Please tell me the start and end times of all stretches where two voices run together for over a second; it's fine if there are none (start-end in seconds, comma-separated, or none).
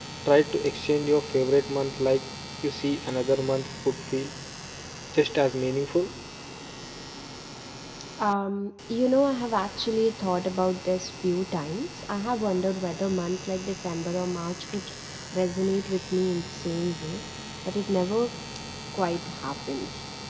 none